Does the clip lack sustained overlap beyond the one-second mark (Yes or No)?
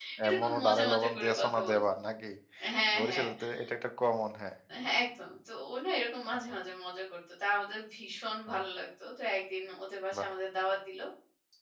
No